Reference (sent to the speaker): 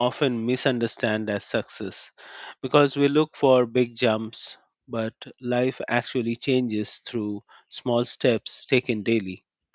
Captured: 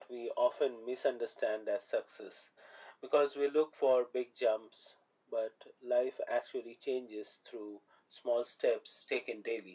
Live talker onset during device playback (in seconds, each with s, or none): none